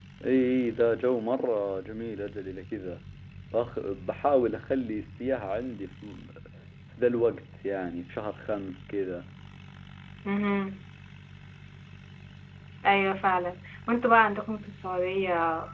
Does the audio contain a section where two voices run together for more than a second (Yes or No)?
No